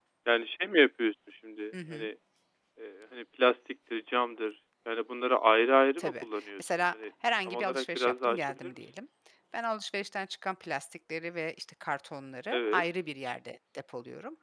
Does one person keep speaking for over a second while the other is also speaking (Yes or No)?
Yes